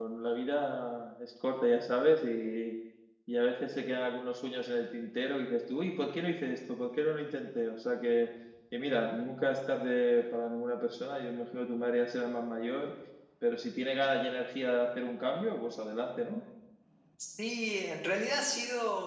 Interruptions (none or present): none